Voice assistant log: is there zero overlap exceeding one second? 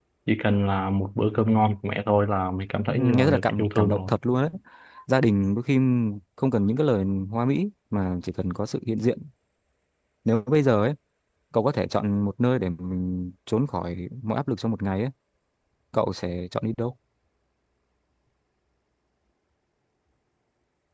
No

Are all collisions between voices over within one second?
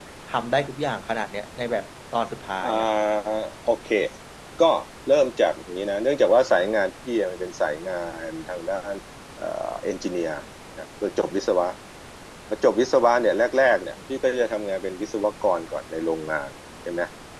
Yes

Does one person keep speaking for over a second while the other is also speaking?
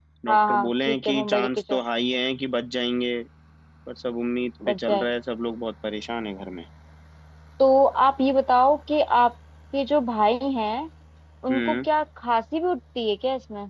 Yes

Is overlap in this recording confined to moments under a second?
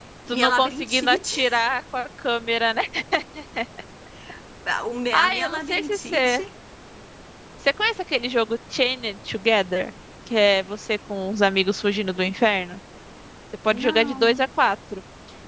No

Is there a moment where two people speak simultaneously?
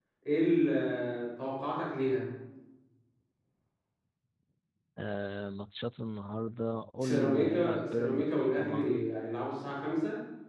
Yes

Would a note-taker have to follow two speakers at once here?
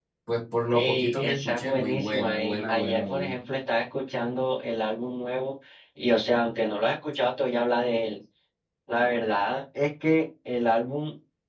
Yes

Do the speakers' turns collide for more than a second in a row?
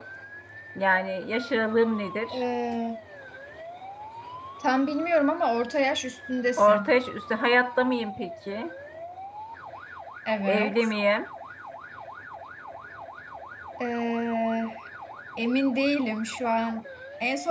No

